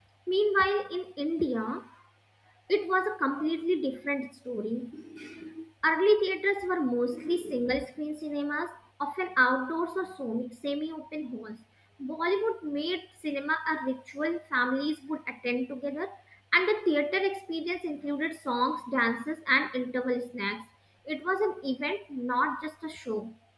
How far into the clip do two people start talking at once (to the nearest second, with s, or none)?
none